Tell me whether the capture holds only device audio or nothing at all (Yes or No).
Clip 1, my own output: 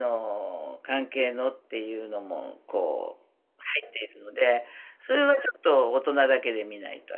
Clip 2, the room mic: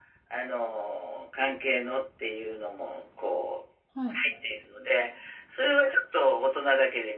No